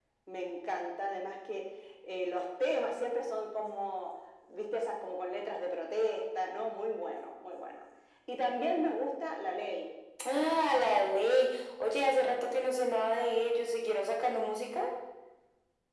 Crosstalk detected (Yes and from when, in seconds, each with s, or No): No